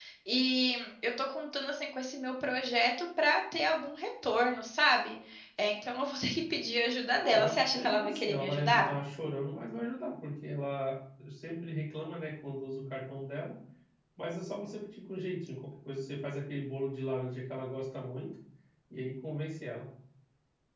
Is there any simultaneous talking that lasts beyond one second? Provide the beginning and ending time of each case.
7.2-8.9

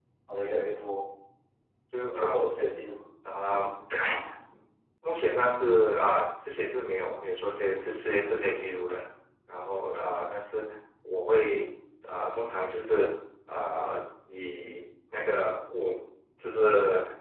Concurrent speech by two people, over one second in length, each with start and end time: none

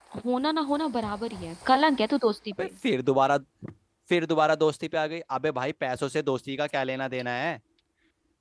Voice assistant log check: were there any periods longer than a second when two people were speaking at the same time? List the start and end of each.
none

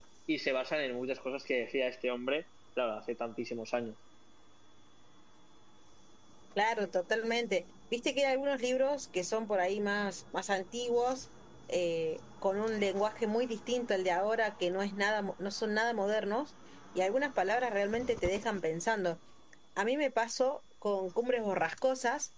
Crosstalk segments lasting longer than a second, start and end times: none

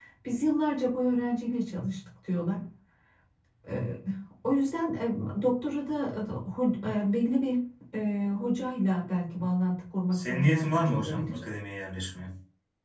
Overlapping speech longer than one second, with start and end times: 10.1-11.4

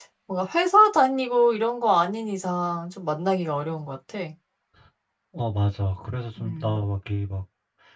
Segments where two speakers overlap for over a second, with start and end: none

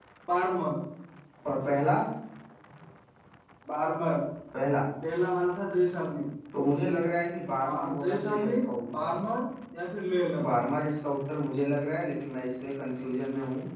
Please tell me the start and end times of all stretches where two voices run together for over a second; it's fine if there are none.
7.6-9.1

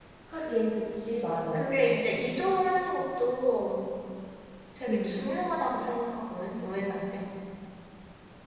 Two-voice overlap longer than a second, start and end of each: none

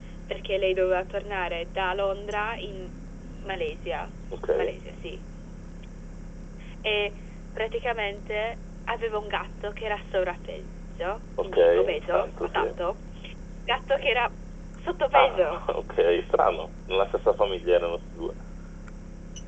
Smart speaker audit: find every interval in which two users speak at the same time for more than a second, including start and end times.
11.4-12.8

